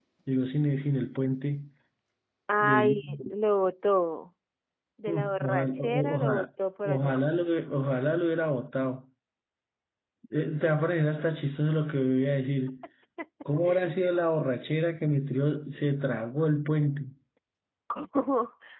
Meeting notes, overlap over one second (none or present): present